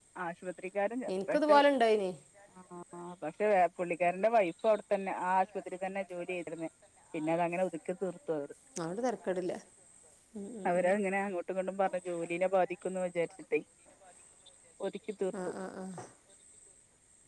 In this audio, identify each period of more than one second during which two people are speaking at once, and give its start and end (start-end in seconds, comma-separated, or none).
none